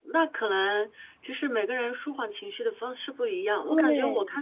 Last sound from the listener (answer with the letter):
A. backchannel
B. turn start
A